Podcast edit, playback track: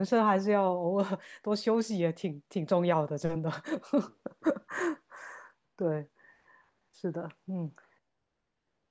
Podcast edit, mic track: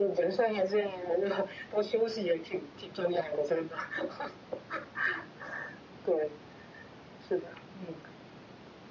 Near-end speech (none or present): none